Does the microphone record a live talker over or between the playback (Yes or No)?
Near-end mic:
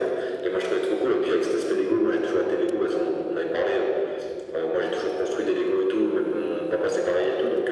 No